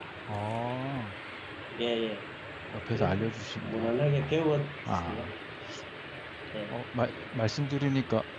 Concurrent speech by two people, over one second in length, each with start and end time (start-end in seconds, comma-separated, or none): 2.9-4.4